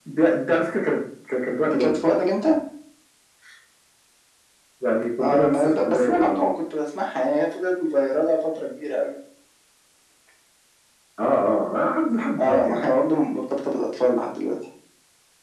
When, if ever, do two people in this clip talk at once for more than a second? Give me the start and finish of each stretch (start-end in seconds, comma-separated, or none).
5.2-6.4